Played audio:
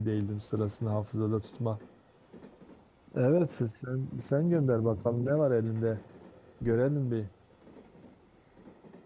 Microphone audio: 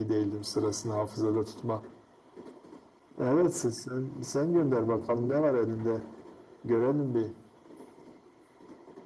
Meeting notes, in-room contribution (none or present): none